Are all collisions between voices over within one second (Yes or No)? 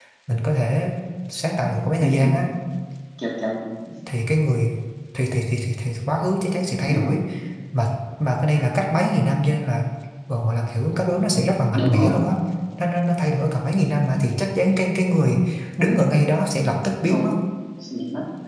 Yes